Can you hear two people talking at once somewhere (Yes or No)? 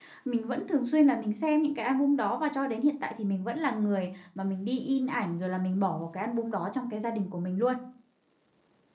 No